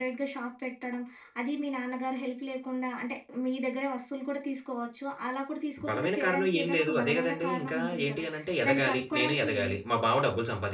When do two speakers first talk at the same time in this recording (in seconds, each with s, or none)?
5.8 s